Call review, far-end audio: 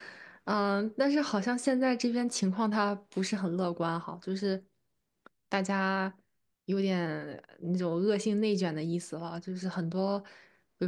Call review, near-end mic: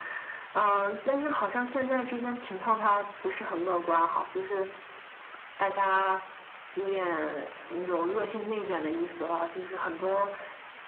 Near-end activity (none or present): none